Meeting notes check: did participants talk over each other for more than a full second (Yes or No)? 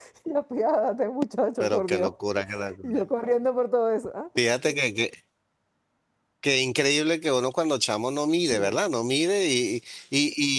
No